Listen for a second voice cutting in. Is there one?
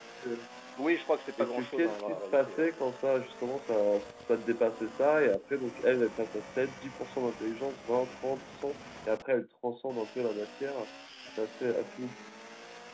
Yes, from 1.4 s

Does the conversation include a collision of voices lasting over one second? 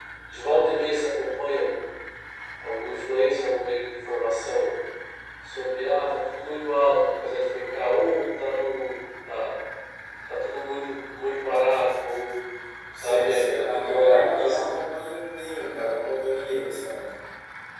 Yes, from 13.0 s

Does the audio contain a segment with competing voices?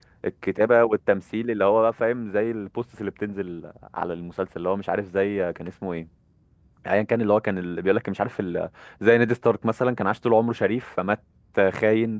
No

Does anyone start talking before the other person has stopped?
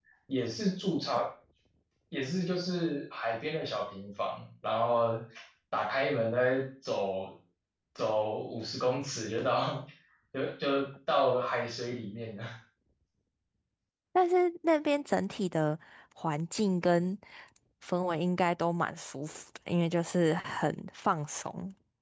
No

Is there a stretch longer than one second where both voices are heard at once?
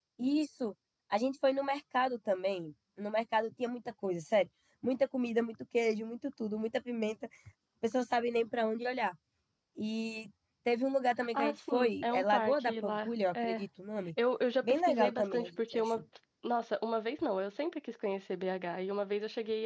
Yes, from 11.3 s

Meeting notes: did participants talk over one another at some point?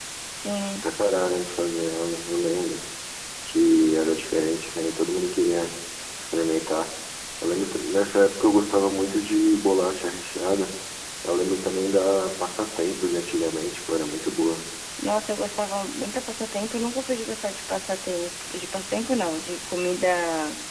No

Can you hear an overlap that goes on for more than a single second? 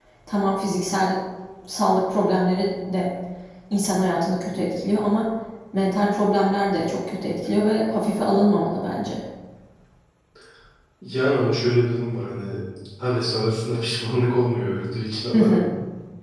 No

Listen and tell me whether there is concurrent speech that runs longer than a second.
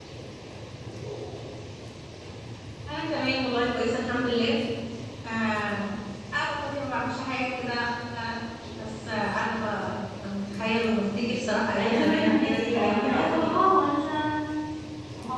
Yes, from 11.8 s

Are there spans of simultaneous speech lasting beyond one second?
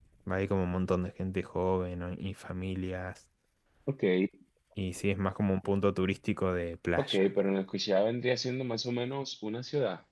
No

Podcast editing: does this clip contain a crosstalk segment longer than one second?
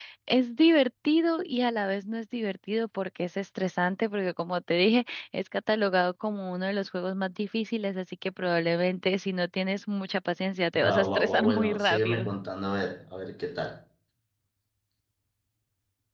Yes, from 10.7 s

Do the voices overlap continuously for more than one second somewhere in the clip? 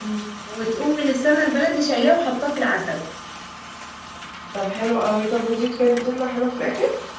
No

